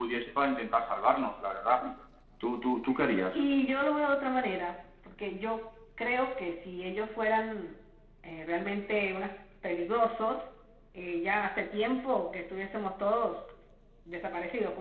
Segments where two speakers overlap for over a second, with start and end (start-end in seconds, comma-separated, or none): none